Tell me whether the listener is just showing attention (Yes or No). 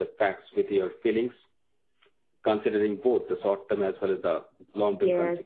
No